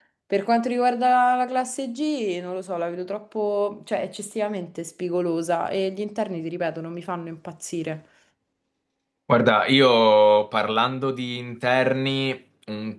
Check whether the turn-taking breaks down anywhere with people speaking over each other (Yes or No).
No